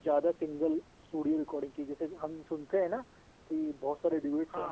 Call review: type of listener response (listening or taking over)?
listening